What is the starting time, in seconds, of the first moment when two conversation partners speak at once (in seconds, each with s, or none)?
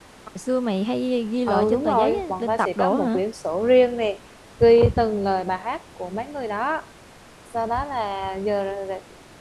1.5 s